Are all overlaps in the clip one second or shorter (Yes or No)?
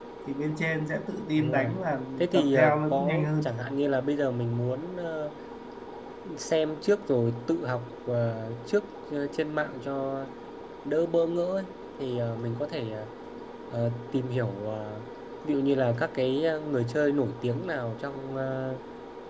No